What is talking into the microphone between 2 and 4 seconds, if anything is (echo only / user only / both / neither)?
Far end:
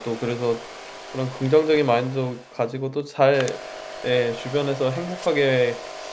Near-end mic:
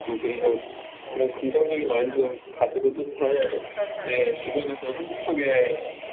both